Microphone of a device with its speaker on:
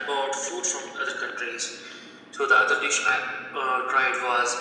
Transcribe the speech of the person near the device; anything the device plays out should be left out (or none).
none